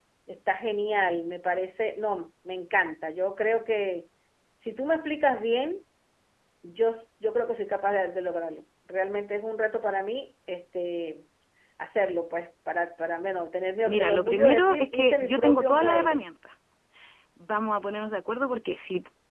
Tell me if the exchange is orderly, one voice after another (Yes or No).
No